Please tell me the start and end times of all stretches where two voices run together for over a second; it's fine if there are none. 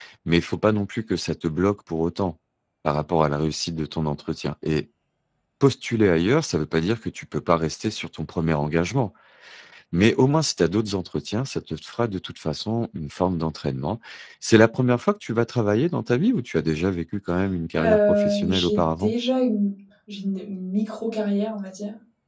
17.8-19.1

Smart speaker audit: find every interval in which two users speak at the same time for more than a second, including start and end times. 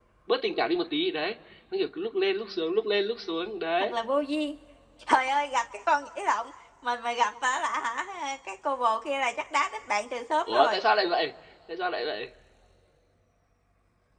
none

